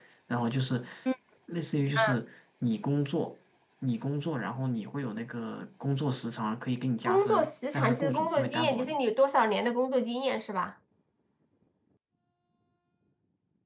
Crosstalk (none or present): present